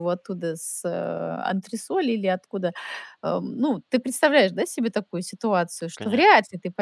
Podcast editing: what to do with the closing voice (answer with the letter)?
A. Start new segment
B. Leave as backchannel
B